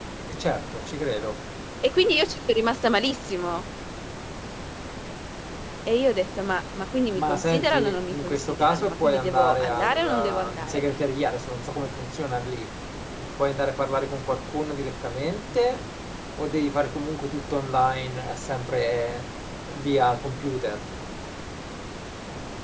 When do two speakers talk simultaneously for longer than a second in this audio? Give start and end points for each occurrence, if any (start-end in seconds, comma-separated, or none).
7.2-10.8